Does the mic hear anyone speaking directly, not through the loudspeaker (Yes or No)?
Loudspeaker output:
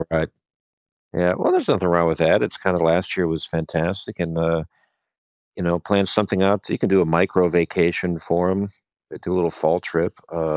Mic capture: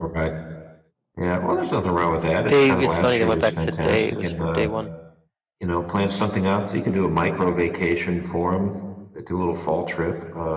Yes